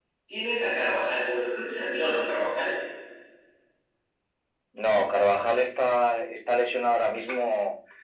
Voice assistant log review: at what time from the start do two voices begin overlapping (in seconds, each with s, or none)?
none